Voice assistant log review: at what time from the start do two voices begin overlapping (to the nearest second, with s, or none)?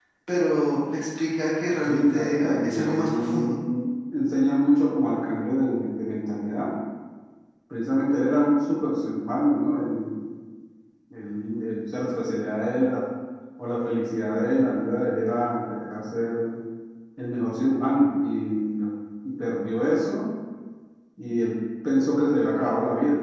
2 s